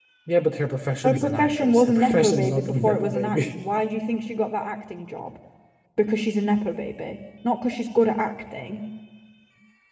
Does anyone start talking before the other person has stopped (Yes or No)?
Yes